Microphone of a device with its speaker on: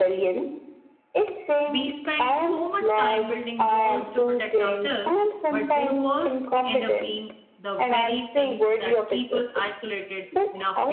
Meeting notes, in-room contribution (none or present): present